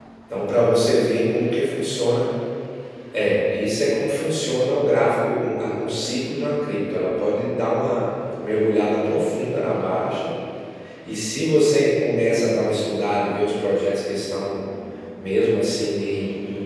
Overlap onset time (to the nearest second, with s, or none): none